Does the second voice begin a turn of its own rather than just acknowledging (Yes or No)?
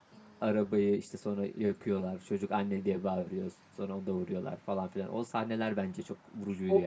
Yes